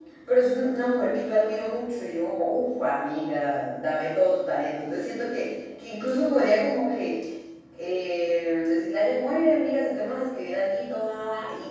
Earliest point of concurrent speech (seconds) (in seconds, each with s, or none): none